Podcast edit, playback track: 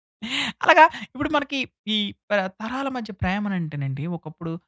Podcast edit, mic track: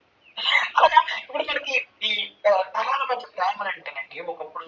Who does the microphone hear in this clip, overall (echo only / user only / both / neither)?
echo only